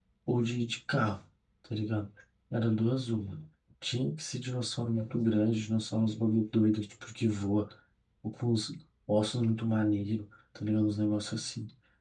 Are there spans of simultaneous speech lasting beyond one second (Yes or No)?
No